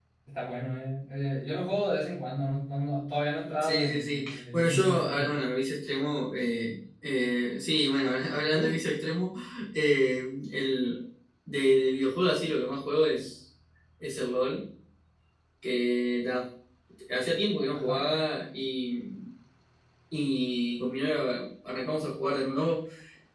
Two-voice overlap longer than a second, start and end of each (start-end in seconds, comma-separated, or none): 3.6-5.3